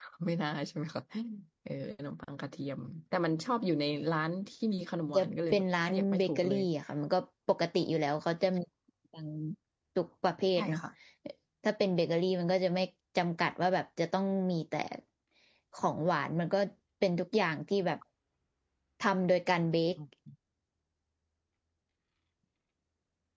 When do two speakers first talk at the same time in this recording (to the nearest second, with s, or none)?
5 s